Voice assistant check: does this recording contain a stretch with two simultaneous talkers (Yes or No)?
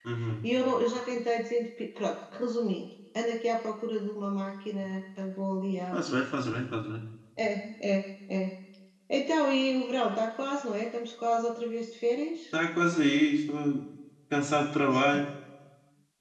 No